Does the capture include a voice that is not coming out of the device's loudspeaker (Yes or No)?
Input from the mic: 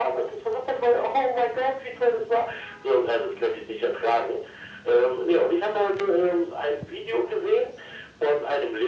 No